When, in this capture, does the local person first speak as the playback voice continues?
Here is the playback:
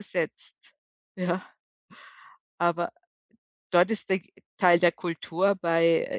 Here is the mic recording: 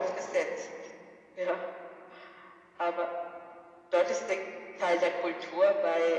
none

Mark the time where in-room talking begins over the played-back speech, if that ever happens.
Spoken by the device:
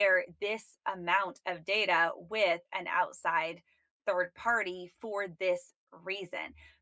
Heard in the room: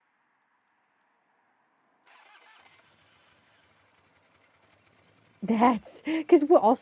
5 s

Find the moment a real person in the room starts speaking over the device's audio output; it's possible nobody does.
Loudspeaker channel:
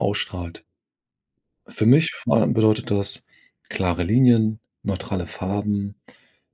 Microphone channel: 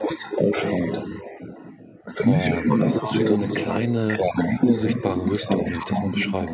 2 s

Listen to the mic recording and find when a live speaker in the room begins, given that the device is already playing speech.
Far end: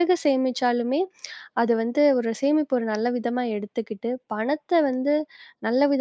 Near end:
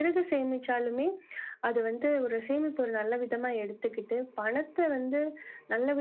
none

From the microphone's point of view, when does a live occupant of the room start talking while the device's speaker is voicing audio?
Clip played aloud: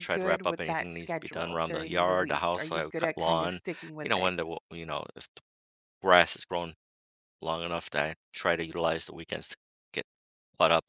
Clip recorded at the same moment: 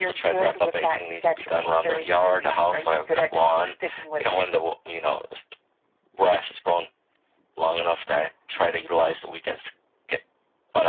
none

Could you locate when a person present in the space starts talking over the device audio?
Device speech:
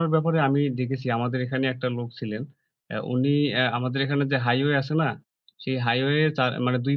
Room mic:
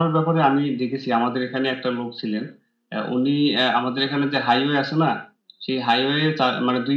none

